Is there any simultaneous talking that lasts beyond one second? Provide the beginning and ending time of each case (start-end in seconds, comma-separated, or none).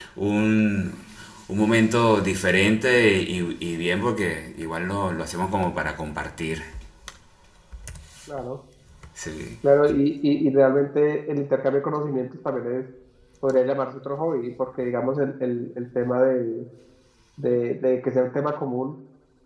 none